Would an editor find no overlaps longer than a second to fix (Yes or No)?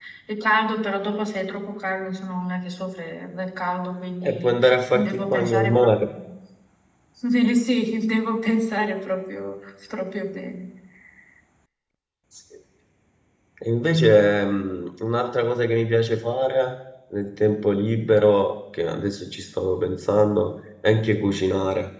No